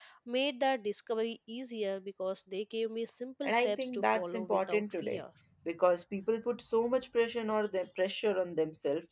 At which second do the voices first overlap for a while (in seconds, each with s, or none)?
3.4 s